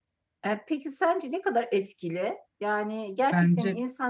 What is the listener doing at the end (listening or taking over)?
listening